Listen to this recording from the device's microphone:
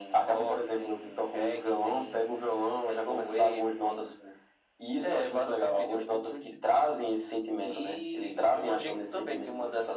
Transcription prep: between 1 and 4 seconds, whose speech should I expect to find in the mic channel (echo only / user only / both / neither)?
echo only